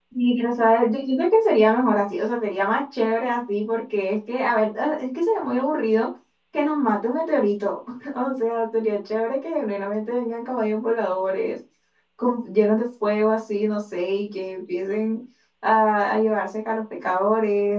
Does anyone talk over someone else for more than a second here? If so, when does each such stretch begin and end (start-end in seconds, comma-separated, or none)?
none